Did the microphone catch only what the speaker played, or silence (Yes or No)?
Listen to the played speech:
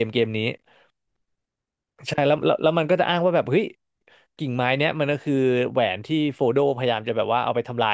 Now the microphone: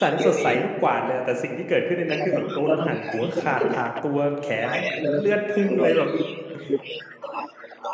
No